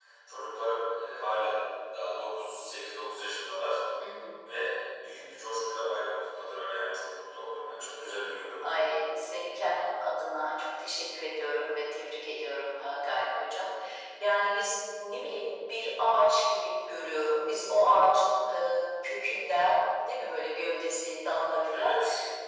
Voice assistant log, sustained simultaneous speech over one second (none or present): none